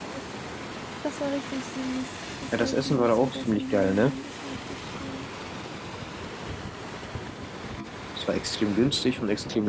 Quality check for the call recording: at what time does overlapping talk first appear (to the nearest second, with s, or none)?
3 s